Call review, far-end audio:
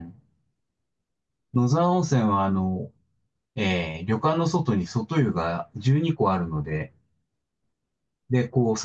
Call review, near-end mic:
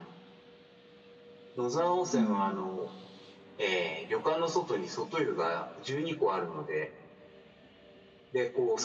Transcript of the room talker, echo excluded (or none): うん。